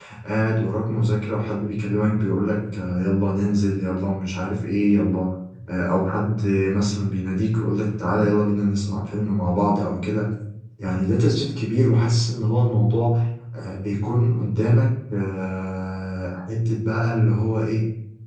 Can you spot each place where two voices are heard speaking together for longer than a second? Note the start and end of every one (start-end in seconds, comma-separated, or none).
none